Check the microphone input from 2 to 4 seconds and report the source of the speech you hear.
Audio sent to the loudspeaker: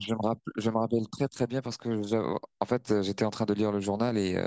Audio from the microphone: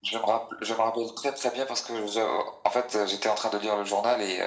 echo only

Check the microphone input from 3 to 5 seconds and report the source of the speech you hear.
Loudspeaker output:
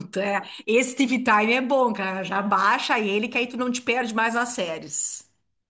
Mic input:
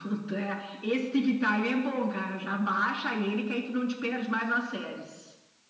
echo only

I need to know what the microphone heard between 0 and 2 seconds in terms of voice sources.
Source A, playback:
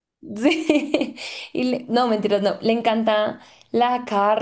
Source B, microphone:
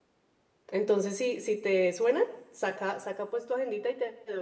user only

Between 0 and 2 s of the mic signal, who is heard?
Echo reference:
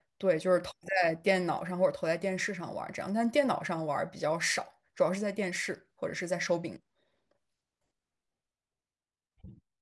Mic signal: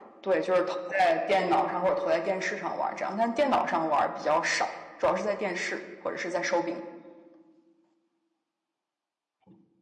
echo only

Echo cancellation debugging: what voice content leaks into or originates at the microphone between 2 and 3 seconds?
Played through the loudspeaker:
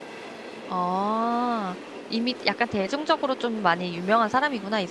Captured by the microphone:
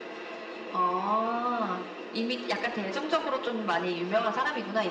echo only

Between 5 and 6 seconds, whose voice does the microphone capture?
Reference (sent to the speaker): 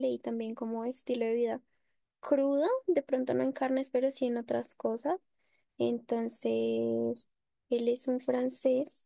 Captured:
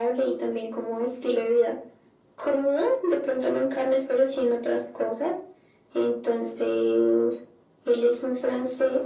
echo only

